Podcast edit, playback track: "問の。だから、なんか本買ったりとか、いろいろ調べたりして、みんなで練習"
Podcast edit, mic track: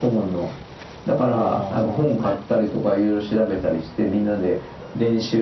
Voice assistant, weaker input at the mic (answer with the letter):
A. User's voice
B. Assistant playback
A